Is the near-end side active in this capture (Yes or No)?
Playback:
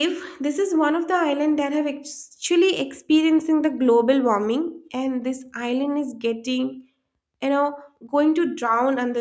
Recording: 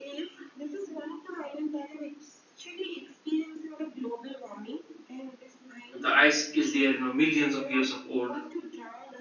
Yes